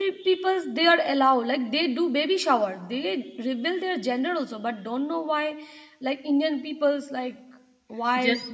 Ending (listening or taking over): taking over